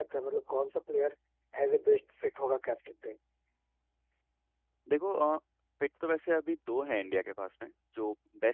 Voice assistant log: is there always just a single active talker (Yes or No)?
Yes